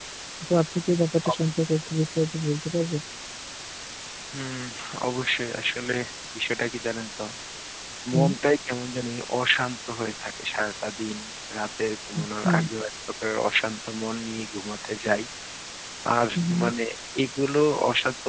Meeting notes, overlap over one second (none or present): none